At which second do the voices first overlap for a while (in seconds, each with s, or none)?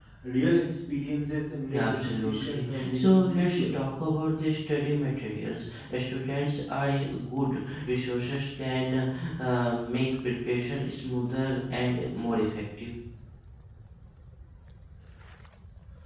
1.7 s